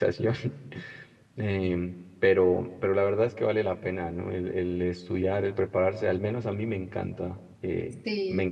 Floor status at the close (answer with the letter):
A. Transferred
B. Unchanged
B